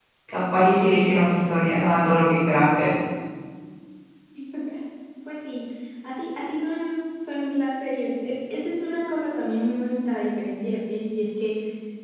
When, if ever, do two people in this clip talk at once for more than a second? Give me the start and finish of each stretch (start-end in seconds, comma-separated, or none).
none